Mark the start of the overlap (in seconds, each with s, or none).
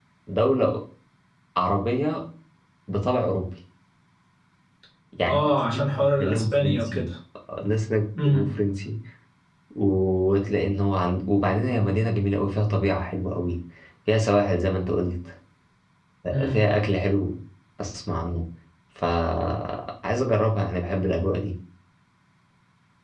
5.2 s